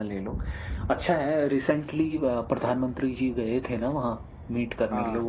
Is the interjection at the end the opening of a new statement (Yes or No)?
No